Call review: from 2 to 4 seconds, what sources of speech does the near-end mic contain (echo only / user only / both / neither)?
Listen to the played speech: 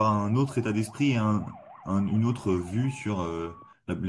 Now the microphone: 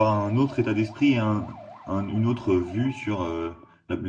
echo only